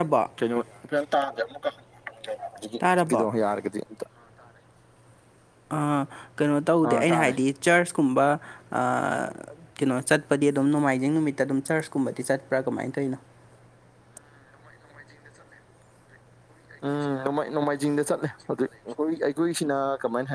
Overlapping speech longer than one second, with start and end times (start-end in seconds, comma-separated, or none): none